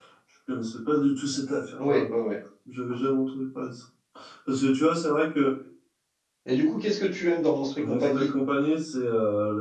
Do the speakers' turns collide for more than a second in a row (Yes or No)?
No